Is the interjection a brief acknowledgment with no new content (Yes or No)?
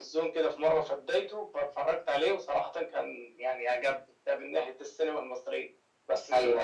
Yes